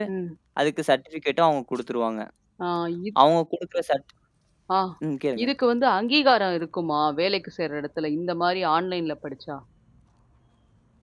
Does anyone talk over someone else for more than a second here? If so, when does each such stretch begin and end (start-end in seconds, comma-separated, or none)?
none